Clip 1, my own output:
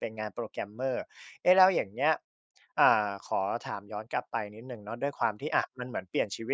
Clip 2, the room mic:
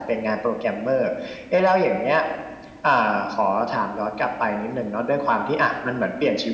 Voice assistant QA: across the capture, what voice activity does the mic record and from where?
echo only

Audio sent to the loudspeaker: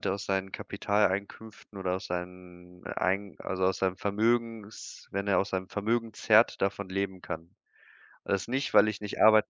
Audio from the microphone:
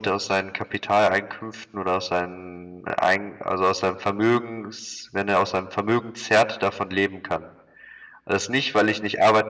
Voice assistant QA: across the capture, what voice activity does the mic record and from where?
echo only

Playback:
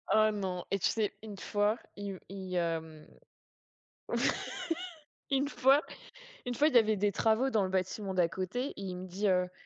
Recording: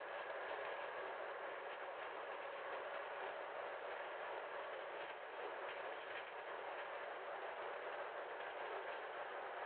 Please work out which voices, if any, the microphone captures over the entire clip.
neither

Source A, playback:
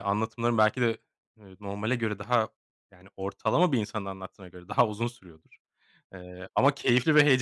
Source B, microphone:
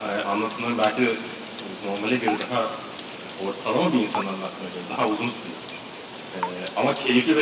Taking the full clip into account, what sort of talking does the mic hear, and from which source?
echo only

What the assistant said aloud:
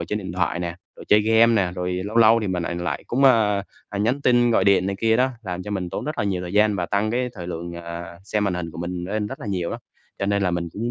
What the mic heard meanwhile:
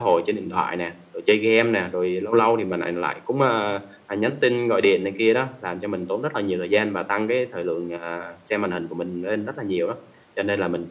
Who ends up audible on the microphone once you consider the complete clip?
echo only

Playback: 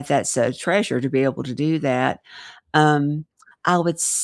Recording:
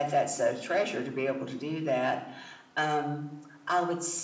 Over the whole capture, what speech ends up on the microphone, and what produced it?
echo only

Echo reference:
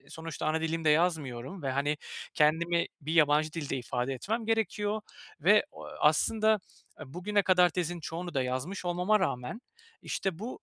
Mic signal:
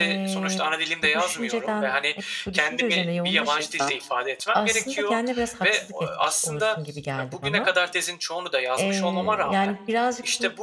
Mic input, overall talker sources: both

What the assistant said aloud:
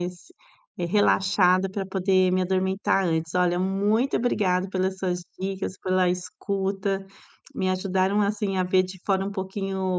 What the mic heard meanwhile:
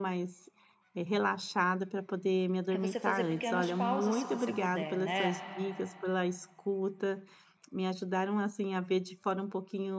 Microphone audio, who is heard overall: both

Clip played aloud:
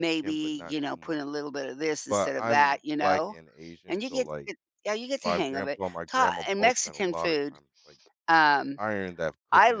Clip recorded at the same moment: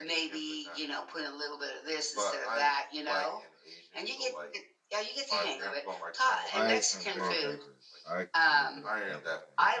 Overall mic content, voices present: both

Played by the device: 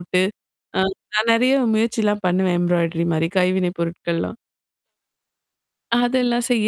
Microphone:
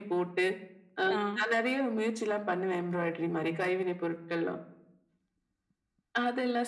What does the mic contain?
both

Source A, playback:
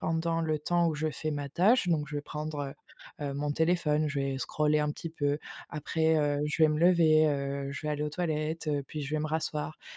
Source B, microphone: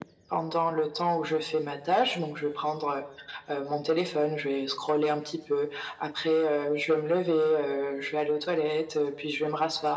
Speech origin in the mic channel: echo only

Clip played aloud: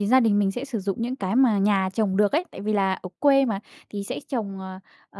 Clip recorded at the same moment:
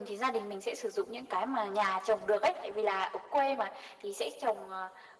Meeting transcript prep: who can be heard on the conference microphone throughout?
echo only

